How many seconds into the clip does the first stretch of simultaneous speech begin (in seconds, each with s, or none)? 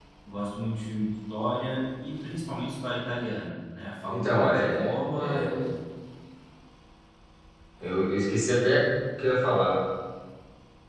4.1 s